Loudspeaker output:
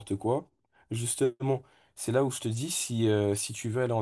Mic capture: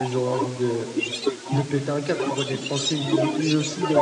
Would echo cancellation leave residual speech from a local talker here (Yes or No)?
Yes